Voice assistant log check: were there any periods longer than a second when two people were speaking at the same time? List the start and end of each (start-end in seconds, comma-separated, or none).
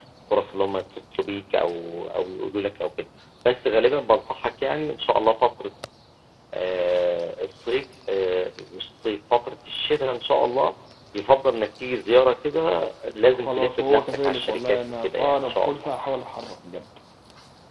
13.3-15.8